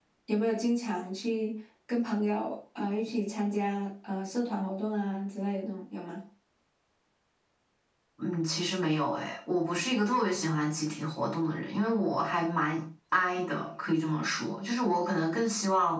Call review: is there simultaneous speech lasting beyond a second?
No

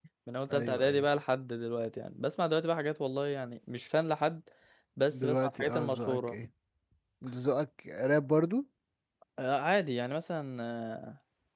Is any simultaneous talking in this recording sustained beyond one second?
Yes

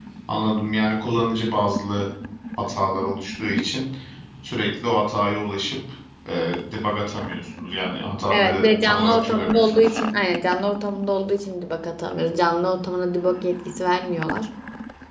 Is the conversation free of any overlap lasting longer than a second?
No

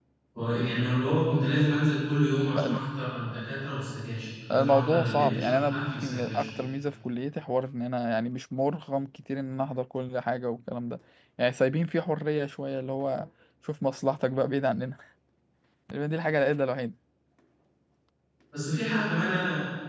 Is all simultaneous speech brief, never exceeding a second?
No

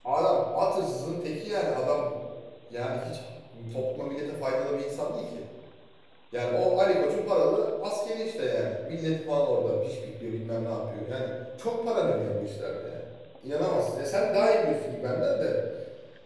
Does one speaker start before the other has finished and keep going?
No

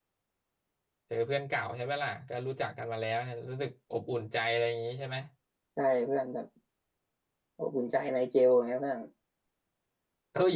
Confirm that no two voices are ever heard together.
Yes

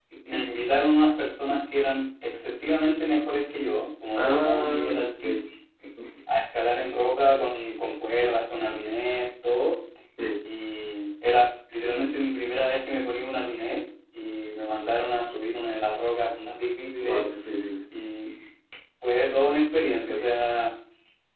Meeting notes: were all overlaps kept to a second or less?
No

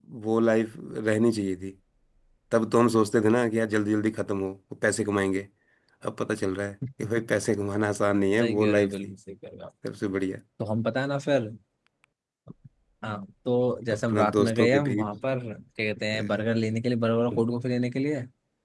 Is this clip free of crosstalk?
No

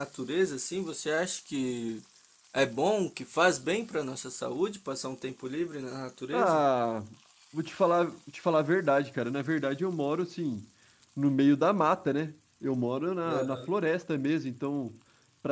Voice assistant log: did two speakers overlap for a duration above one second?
No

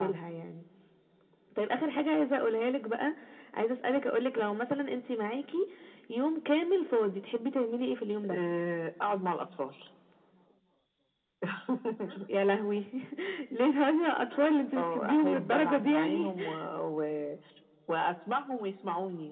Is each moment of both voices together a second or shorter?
No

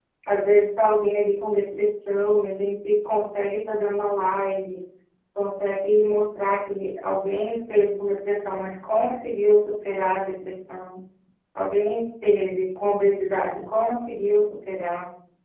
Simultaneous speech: No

